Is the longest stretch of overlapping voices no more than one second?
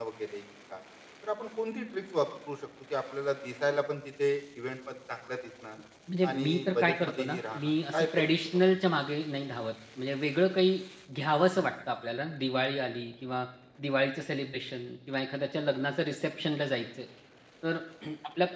No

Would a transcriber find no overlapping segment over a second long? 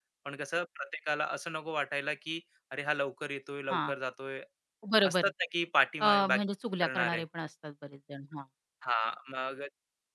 Yes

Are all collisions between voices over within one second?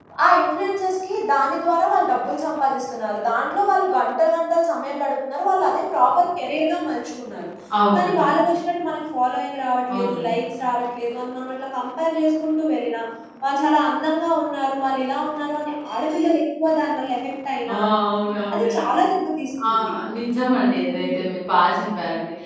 Yes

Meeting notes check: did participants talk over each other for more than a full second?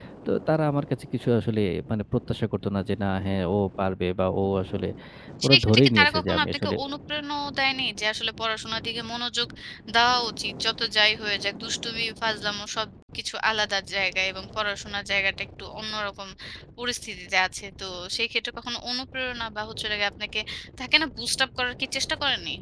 Yes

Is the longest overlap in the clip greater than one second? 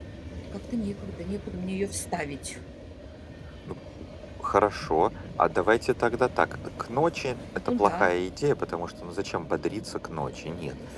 No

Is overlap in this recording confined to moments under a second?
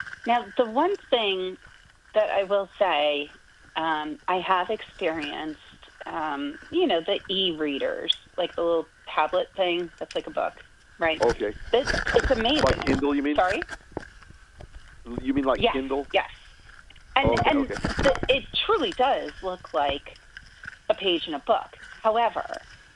Yes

